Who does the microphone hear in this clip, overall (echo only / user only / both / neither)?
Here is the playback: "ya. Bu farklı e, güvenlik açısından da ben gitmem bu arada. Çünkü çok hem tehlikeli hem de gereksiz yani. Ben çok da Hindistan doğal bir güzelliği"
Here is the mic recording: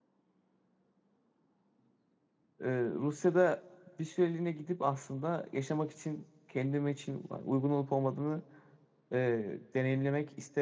user only